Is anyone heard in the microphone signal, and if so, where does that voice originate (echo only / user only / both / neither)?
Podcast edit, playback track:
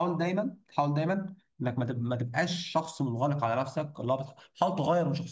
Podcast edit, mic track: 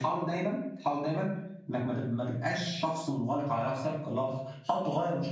echo only